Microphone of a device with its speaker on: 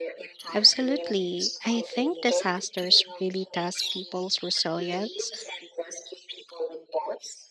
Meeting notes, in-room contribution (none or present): present